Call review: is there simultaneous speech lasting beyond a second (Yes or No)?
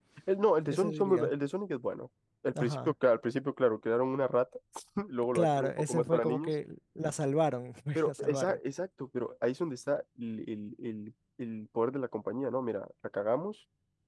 Yes